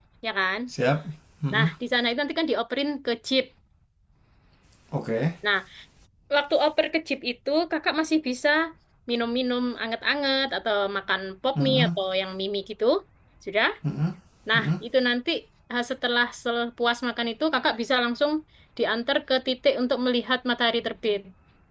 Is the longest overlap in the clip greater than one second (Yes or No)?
No